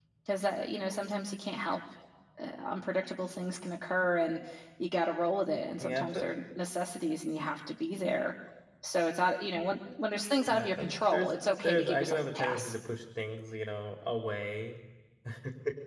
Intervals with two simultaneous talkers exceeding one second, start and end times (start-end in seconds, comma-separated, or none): 10.5-12.7